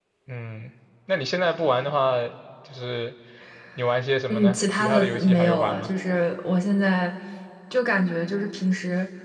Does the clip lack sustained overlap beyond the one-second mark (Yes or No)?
No